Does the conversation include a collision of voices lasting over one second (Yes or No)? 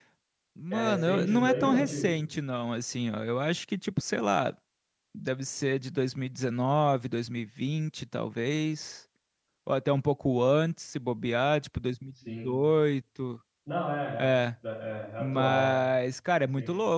Yes